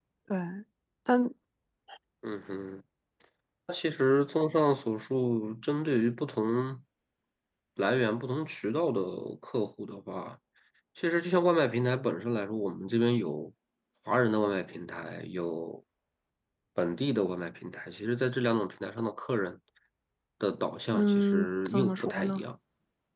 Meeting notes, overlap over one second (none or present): present